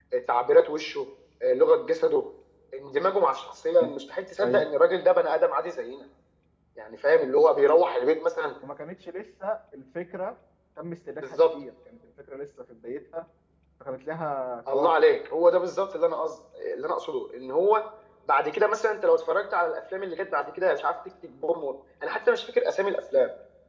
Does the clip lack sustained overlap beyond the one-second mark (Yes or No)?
Yes